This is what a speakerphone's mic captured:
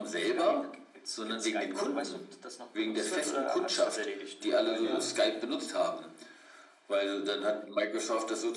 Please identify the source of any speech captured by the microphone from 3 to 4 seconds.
echo only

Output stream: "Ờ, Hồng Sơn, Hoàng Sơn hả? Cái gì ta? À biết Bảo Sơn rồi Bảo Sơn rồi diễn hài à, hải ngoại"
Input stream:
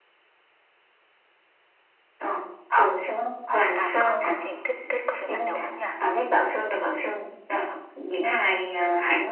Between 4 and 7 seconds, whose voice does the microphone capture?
both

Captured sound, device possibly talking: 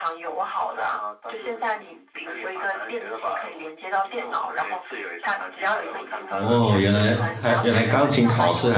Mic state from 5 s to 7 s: both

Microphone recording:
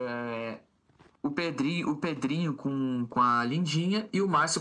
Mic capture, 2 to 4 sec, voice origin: echo only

